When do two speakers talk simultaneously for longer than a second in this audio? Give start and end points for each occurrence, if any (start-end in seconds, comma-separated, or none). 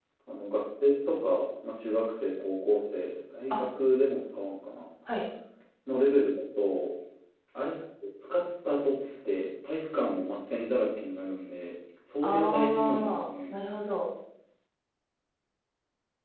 12.2-13.5